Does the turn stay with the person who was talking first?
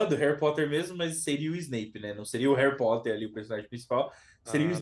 Yes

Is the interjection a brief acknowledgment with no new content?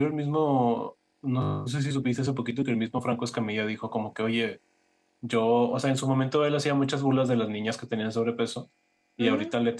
Yes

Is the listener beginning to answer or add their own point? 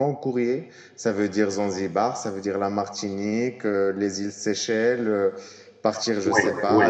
Yes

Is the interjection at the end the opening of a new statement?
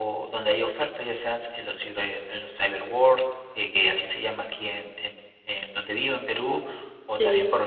No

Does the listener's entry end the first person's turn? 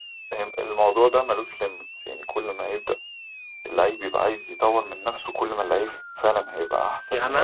Yes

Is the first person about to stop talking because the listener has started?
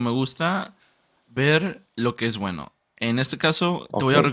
No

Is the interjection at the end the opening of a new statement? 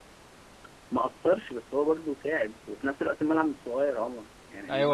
Yes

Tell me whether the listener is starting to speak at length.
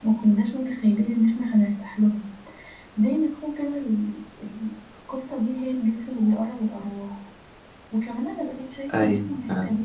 No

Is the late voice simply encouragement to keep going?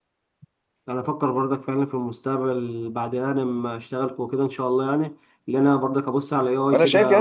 No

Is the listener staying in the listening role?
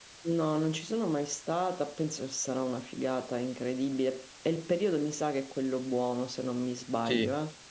No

